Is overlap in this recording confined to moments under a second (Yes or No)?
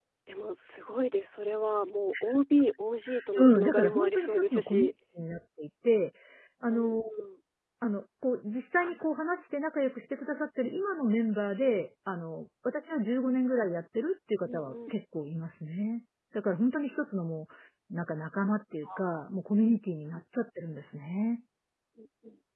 No